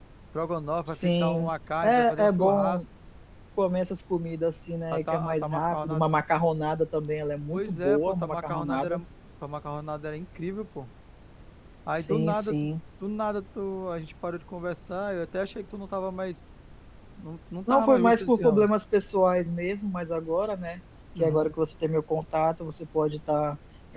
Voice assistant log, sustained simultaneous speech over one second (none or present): present